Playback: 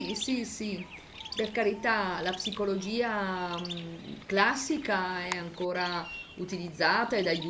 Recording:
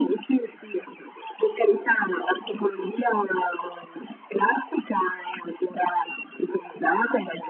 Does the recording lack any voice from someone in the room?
Yes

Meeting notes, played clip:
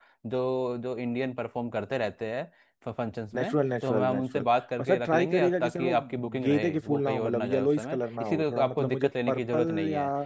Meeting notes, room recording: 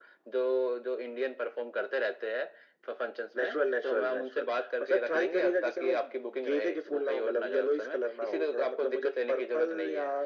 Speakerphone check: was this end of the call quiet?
Yes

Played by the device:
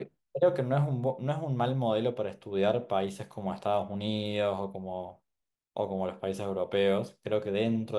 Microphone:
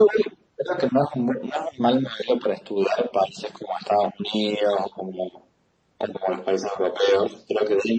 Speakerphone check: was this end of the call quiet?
Yes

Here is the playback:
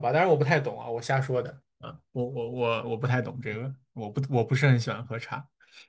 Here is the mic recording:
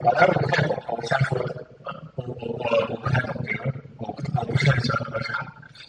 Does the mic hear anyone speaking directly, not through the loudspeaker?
No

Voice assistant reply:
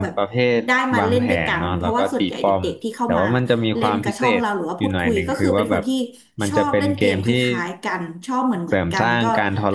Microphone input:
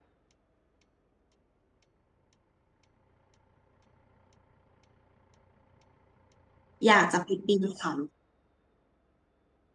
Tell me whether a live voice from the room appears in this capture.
Yes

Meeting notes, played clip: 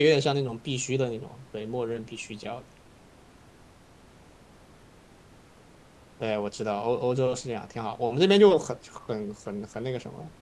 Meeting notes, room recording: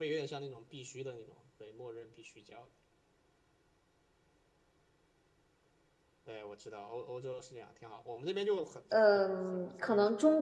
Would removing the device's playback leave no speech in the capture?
No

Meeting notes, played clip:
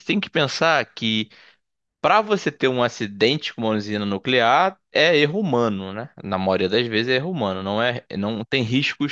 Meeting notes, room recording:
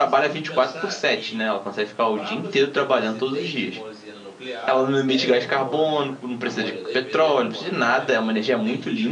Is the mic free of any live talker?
No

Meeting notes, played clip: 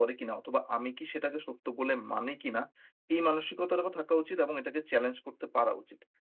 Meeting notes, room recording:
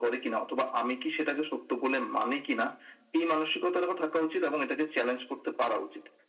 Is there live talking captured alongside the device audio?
No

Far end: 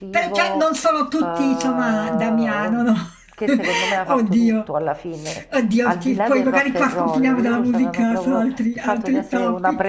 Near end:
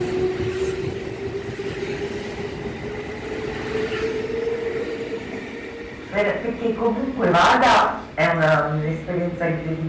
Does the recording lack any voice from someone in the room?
No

